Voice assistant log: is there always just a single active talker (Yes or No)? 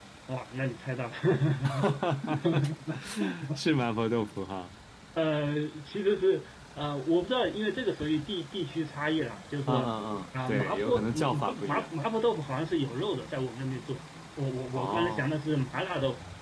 No